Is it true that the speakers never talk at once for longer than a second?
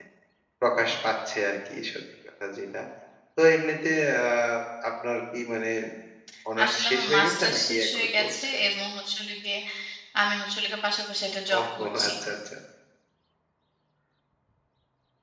No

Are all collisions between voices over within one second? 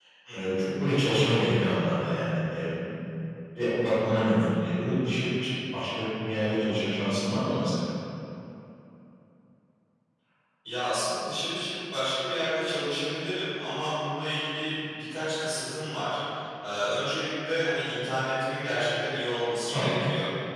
Yes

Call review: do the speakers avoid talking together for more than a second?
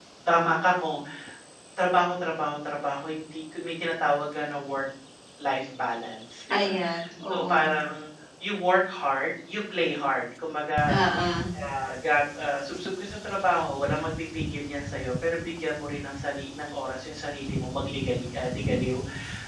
Yes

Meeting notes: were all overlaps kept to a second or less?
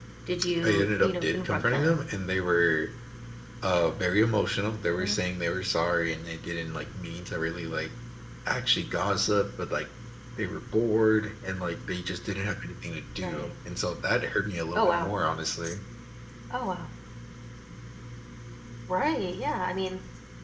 No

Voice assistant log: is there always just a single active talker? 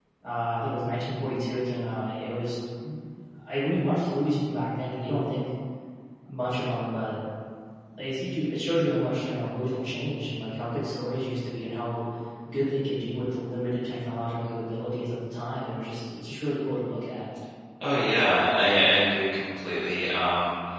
Yes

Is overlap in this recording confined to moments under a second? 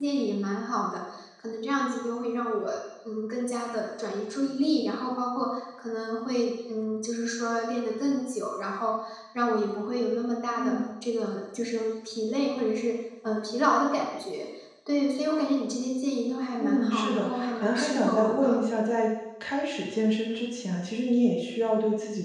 No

